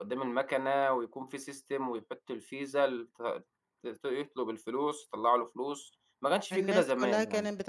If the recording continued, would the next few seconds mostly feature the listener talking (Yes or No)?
Yes